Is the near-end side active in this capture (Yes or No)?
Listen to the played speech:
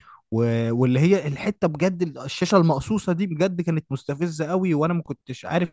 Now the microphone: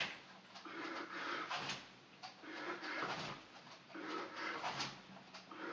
No